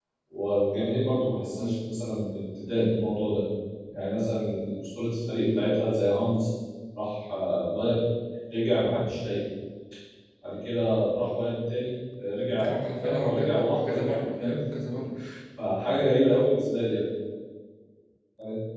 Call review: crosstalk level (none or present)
present